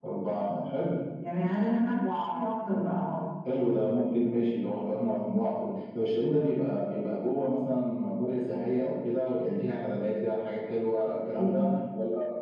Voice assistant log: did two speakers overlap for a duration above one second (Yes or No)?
No